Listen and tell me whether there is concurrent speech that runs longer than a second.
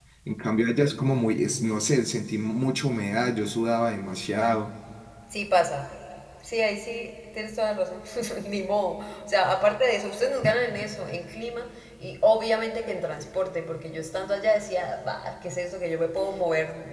No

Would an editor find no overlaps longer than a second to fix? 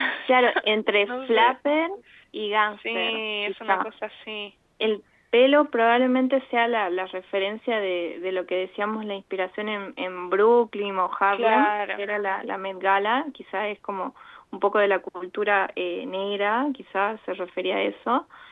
No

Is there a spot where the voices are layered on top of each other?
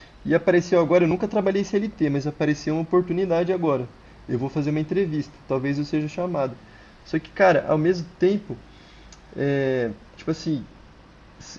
No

